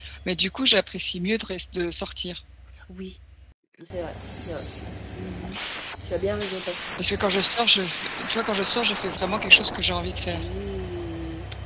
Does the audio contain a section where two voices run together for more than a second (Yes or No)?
No